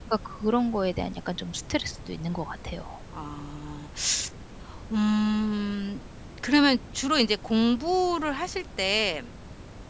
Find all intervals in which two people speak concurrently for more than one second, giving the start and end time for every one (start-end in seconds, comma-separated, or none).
none